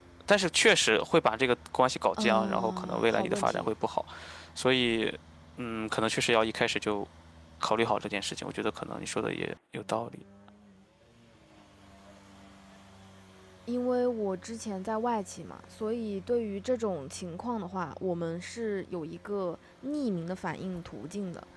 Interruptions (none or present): present